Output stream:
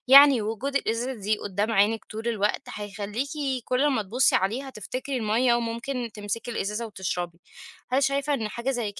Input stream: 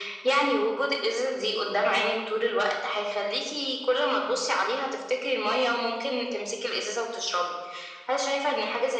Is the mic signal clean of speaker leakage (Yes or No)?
No